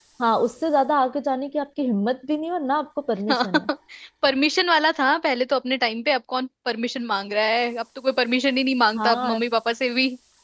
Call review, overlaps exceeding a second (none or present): none